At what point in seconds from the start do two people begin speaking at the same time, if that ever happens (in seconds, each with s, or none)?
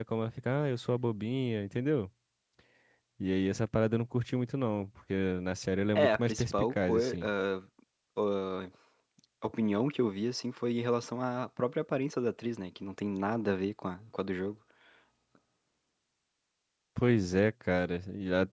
6.0 s